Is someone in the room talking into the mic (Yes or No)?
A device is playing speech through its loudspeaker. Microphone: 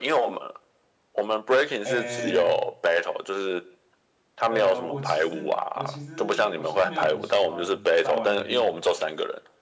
Yes